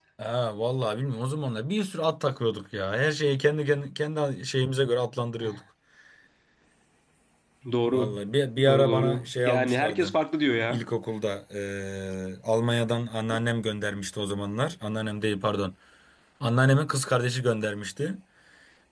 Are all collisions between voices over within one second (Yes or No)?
No